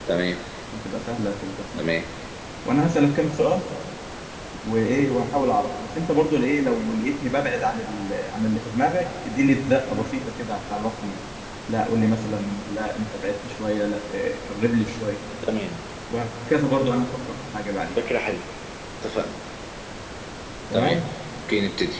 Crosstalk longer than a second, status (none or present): none